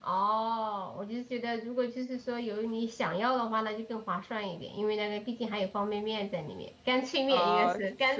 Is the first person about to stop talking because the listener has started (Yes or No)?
Yes